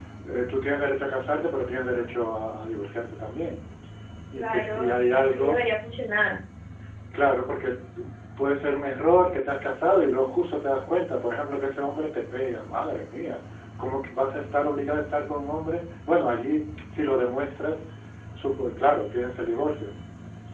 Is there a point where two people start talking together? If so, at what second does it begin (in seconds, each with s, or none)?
4.4 s